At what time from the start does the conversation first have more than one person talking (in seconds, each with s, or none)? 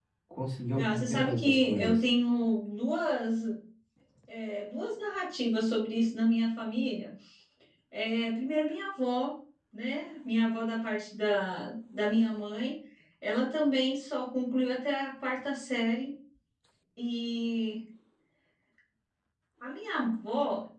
0.7 s